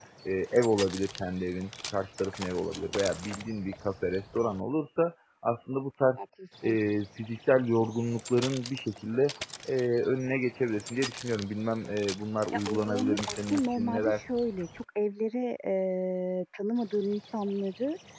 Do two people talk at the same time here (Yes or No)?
Yes